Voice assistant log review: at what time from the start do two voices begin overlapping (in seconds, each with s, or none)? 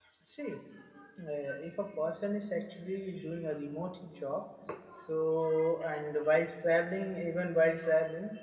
none